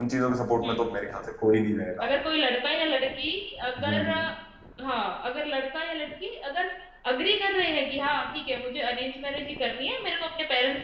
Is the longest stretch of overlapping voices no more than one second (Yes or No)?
Yes